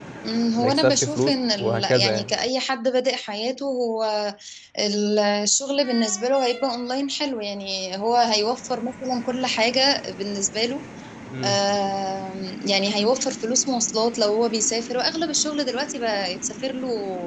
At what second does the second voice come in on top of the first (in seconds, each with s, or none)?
0.6 s